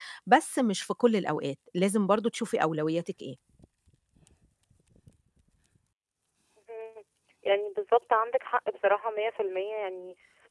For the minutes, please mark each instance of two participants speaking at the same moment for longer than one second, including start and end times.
none

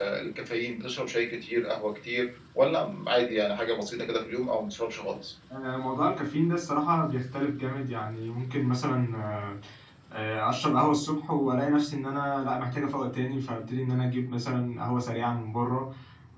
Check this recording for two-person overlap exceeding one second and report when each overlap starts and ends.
none

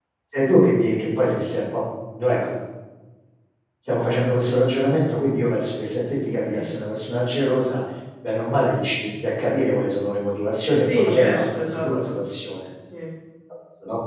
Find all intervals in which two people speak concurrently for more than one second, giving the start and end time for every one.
10.8-12.2

